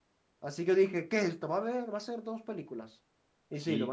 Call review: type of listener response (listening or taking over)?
taking over